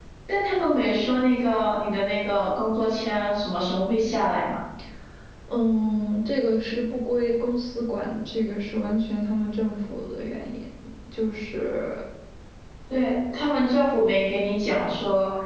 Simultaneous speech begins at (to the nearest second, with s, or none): none